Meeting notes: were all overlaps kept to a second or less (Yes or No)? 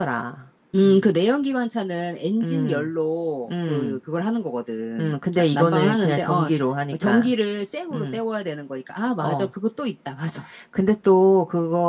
No